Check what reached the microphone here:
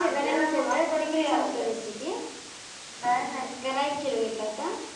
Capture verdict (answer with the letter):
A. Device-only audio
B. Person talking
A